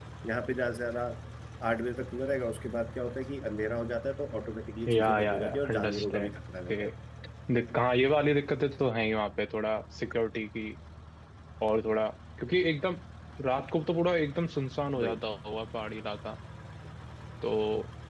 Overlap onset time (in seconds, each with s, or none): 4.9 s